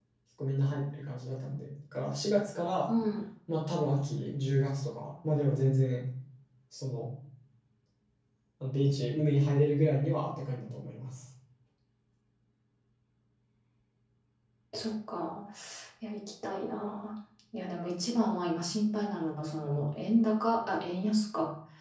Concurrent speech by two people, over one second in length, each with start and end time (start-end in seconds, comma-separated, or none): none